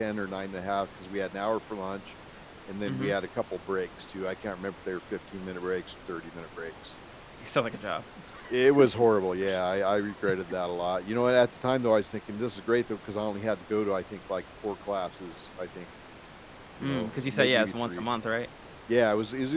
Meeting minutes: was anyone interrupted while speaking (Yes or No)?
Yes